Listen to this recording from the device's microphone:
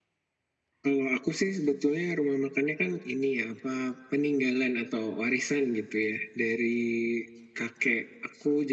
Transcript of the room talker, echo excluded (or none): none